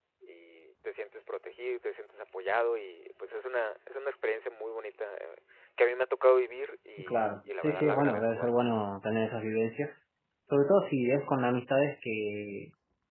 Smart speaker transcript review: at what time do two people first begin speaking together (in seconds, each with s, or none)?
7.0 s